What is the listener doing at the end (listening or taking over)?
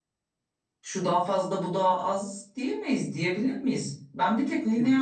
listening